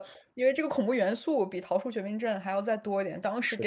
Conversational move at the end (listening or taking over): listening